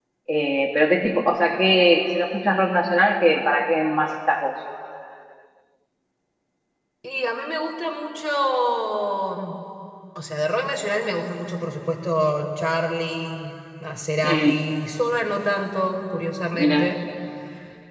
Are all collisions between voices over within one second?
Yes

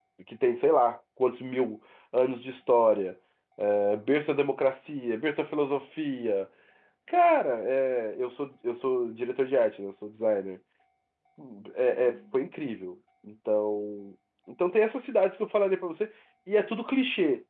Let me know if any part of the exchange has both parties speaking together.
No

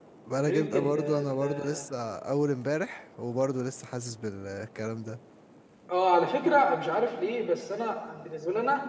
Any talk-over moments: Yes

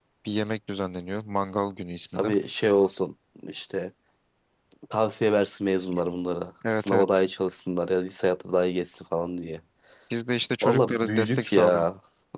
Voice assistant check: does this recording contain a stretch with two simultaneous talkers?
Yes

